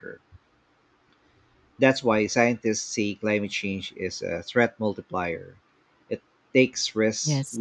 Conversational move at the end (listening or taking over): listening